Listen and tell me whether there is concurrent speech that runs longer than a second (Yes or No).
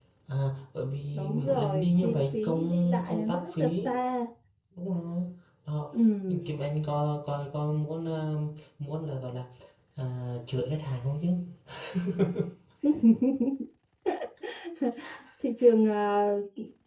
Yes